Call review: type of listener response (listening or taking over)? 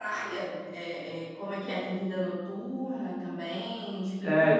taking over